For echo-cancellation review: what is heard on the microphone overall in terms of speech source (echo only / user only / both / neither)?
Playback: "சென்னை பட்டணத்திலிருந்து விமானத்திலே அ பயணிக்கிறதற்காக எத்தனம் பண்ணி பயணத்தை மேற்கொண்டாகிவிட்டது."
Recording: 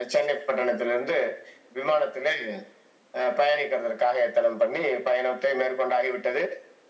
echo only